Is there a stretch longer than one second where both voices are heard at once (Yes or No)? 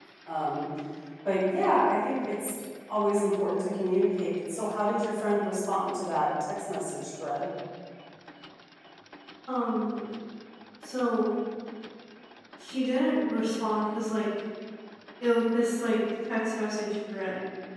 No